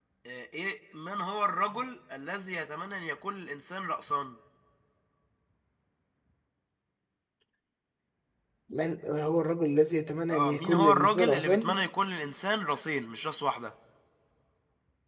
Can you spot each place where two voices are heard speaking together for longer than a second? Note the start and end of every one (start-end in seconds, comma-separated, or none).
10.3-11.7